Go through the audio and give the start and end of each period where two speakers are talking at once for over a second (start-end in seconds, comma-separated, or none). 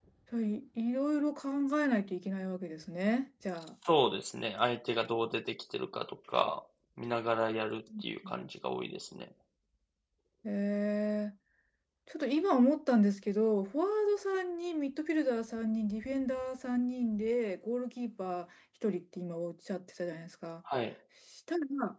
none